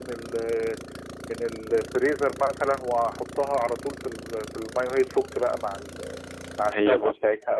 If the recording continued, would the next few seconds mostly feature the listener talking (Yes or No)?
Yes